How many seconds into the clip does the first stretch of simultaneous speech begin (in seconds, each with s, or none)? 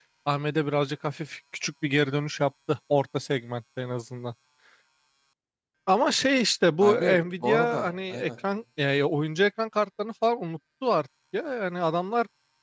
6.8 s